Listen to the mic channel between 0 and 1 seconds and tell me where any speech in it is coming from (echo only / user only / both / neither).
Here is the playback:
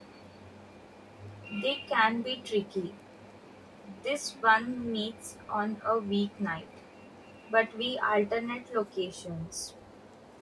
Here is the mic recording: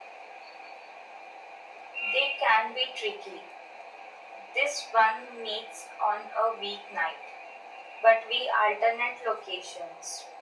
neither